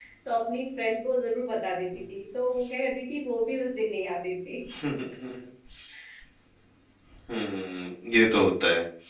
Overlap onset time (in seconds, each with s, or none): none